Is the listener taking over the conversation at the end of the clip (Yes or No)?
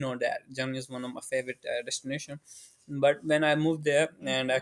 No